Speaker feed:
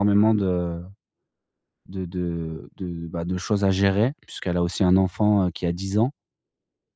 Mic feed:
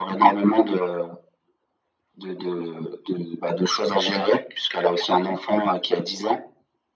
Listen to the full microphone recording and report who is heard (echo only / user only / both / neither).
echo only